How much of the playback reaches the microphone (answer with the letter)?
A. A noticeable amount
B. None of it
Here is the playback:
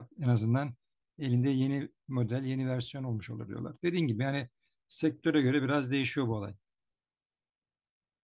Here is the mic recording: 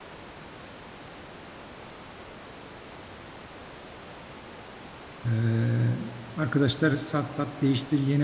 B